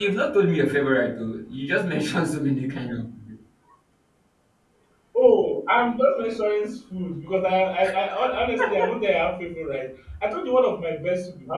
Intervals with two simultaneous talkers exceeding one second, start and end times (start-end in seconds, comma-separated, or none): none